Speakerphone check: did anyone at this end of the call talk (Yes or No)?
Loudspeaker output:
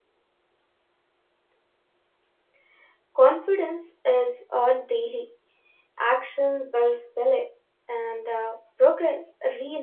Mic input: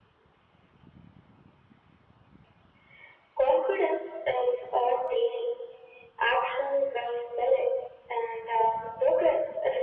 No